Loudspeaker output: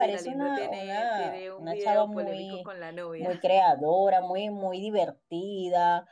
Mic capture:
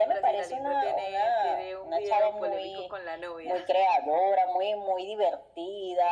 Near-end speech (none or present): none